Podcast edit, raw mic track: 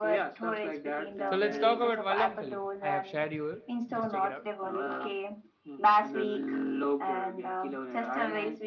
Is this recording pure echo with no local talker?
No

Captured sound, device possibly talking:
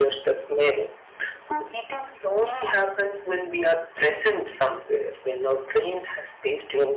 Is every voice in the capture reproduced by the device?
Yes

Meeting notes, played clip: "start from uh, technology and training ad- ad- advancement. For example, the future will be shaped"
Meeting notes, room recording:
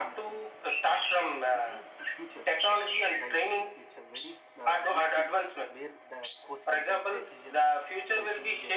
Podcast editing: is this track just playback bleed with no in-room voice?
No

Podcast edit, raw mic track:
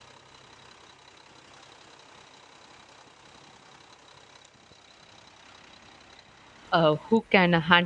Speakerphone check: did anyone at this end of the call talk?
Yes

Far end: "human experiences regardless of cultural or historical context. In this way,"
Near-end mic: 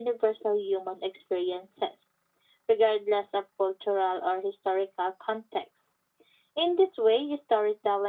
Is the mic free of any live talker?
Yes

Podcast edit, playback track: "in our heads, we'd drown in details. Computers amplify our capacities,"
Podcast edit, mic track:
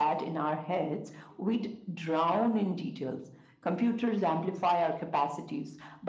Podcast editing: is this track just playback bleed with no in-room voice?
Yes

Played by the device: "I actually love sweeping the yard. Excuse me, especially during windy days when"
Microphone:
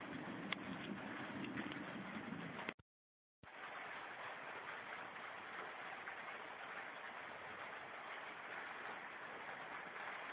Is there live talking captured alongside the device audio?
No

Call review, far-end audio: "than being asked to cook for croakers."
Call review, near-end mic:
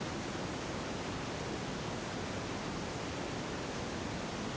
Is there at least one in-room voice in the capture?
No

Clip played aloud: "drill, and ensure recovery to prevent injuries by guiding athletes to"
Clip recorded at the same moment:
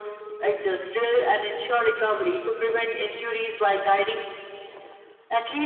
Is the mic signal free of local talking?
Yes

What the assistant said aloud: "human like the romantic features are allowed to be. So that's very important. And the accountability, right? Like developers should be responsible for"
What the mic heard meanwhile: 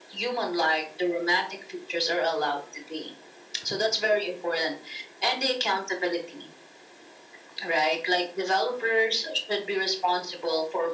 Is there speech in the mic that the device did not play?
No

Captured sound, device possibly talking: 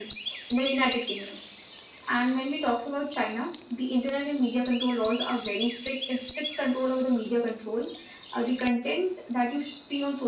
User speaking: No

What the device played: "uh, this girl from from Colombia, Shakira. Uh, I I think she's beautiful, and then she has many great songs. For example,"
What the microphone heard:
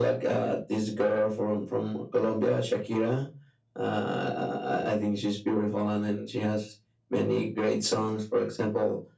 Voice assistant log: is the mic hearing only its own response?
Yes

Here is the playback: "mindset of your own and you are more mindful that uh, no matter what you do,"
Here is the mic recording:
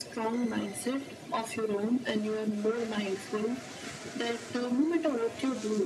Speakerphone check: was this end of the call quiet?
Yes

